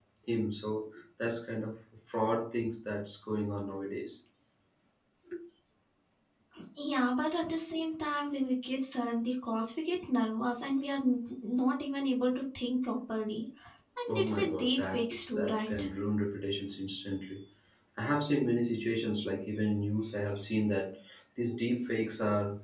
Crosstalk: present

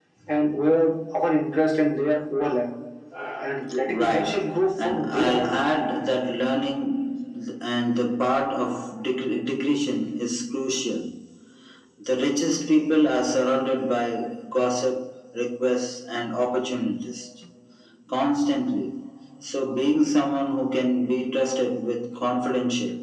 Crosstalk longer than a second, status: present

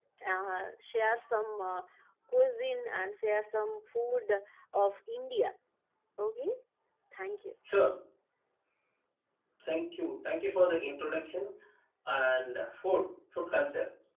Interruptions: none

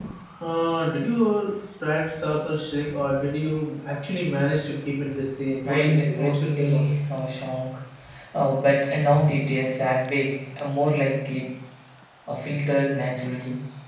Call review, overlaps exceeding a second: present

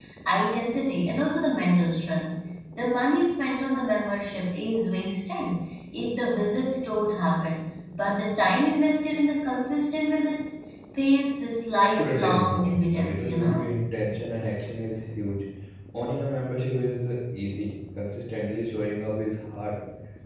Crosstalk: present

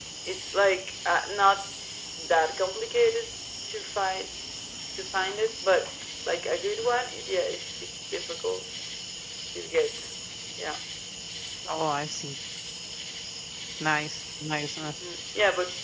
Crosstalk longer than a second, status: none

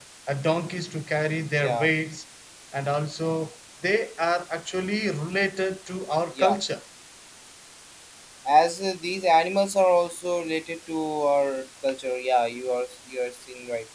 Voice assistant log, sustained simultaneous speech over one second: none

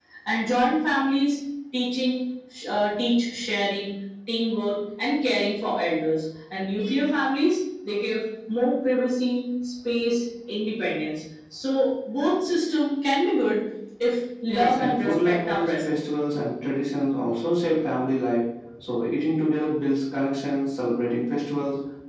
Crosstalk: present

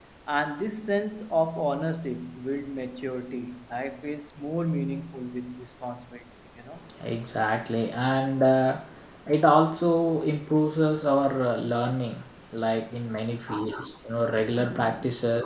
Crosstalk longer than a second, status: none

